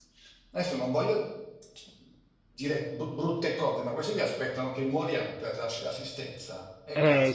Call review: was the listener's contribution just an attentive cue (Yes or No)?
No